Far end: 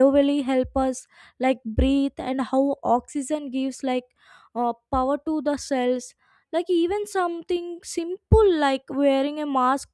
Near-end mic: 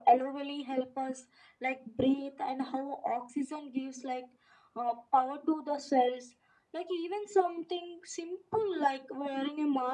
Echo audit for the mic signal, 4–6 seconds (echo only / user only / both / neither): echo only